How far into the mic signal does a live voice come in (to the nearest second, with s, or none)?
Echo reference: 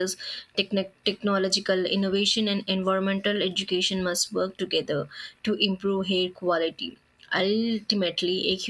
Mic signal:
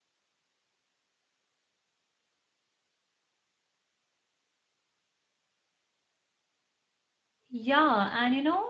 8 s